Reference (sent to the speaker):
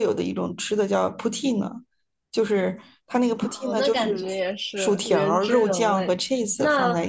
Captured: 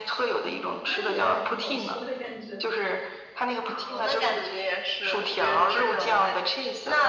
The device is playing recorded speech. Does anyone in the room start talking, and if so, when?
0.3 s

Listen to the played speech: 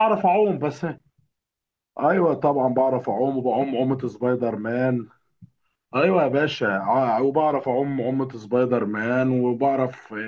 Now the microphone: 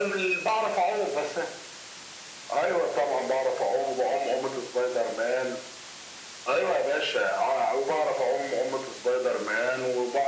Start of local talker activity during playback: none

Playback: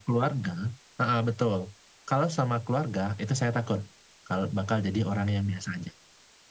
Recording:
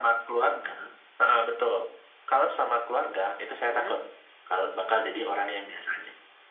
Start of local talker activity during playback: 3.6 s

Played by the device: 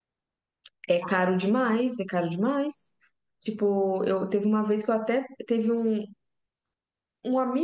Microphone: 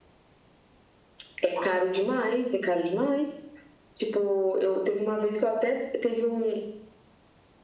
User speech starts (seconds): none

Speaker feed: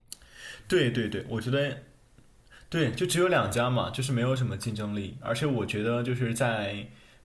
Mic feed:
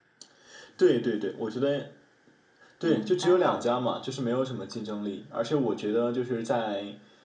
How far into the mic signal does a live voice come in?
2.8 s

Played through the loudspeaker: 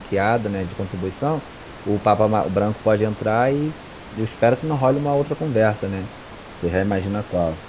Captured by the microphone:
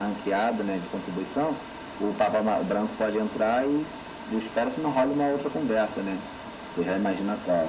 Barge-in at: none

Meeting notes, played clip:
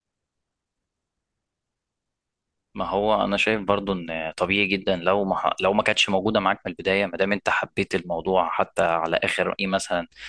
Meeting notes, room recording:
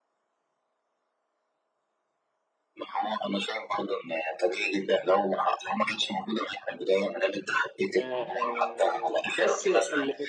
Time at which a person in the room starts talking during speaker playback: 7.9 s

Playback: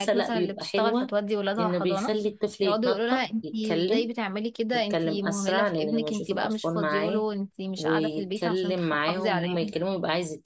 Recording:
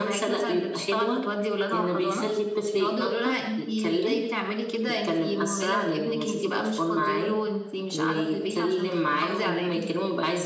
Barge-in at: none

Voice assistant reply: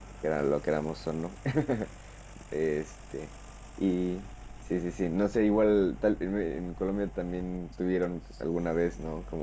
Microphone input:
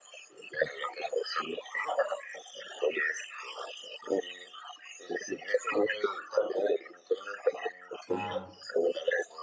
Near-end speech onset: 8.1 s

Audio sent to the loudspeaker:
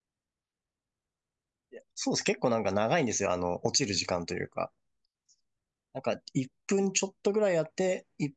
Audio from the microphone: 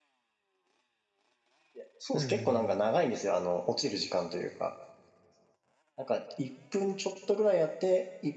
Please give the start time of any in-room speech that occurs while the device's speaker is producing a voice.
2.1 s

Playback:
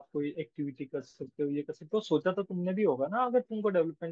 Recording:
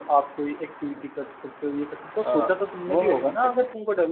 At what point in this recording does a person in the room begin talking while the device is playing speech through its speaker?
2.2 s

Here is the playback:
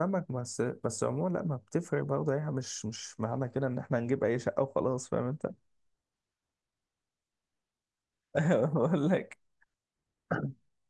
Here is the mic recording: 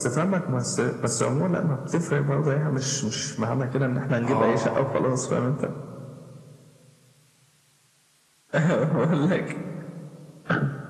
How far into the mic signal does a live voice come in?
4.2 s

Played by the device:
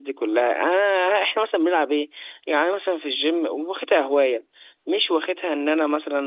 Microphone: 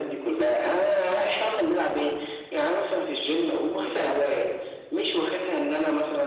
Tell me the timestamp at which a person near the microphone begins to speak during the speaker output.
none

